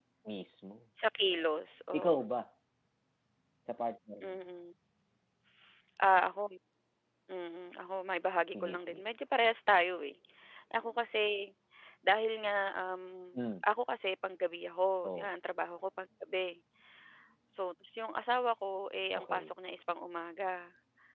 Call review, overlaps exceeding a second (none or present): none